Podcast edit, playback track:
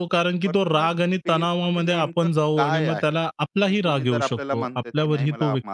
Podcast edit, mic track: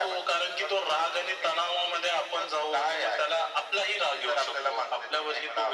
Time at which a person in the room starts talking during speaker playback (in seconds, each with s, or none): none